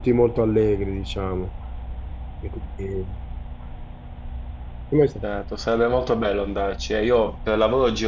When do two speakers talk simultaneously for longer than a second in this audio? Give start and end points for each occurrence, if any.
none

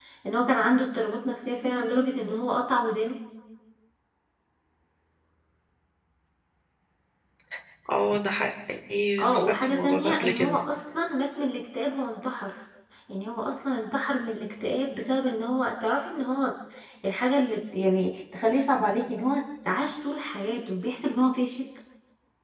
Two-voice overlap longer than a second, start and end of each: 9.2-10.6

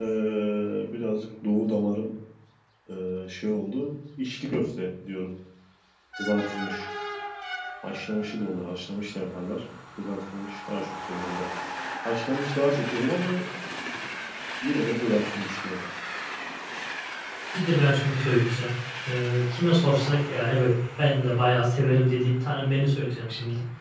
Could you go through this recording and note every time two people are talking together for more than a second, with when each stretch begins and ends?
none

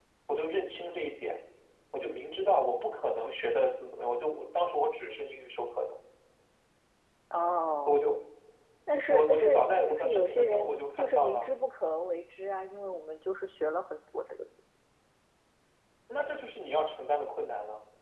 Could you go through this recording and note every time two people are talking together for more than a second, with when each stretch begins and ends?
9.1-11.5

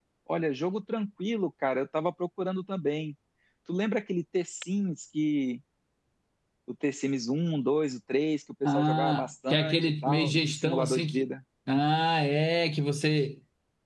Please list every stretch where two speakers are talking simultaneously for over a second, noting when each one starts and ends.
8.7-11.2

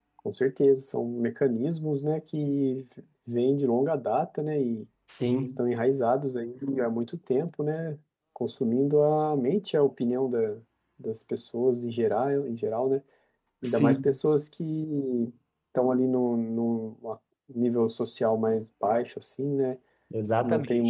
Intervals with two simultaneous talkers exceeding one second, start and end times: none

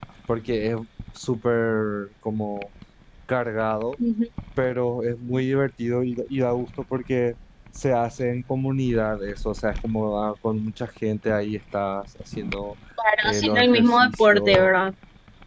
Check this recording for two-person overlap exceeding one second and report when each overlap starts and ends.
13.2-14.7

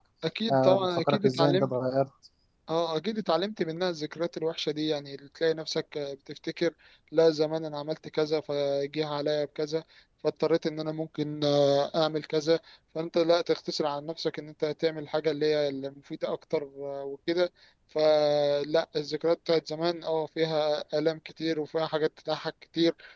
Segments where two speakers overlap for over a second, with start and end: 0.5-1.7

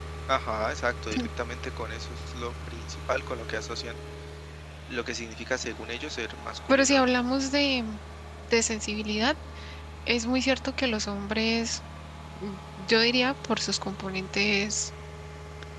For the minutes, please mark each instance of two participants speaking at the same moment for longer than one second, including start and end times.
none

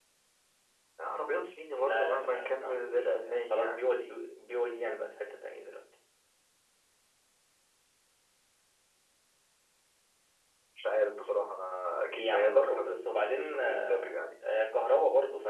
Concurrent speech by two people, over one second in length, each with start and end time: 1.7-3.8, 12.1-14.2

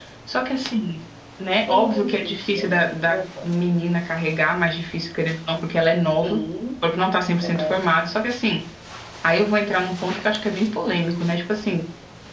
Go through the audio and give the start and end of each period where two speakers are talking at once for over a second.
1.7-3.6

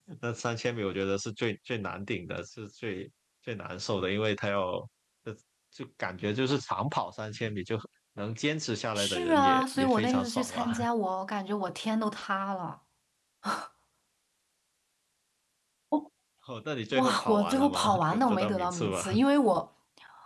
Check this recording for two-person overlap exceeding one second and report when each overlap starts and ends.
9.0-10.8, 16.9-19.0

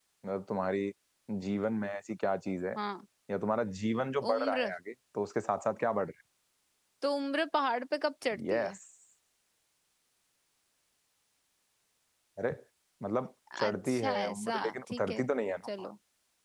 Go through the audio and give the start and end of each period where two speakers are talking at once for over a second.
13.6-15.2

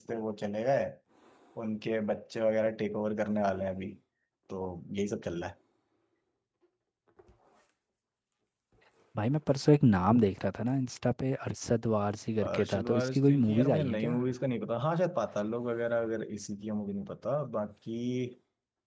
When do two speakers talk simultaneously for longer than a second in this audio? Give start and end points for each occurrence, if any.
12.4-14.1

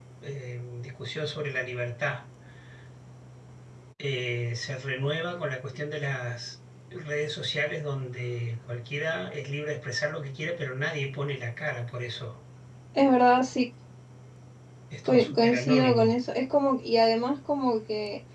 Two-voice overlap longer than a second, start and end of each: 15.0-16.3

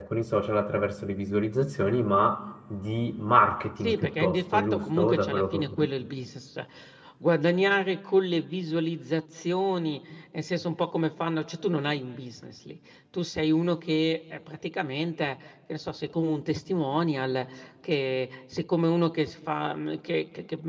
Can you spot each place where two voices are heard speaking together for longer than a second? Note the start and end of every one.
3.8-5.9

